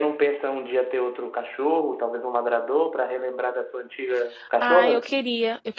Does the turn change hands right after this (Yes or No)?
Yes